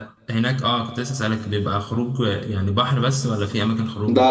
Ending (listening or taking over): taking over